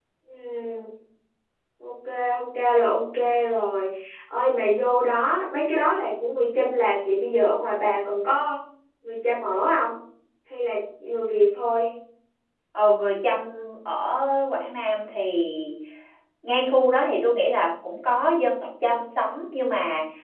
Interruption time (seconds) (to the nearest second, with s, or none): none